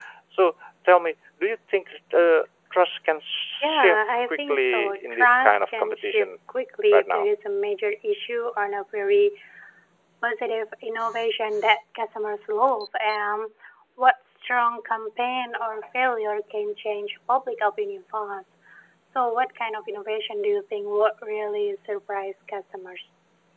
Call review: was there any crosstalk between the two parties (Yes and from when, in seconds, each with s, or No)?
Yes, from 3.6 s